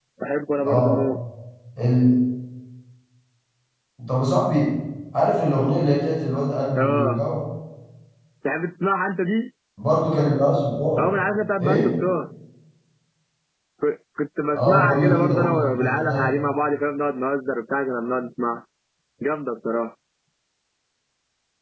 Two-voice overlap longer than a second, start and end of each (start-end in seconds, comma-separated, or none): 14.6-16.3